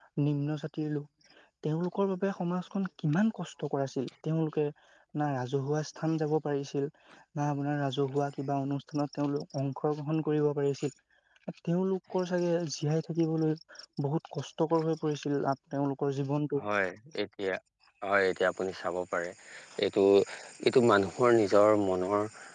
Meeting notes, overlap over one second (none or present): none